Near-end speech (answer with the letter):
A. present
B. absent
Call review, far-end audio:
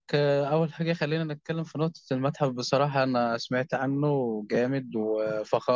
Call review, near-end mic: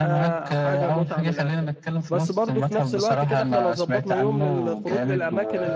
A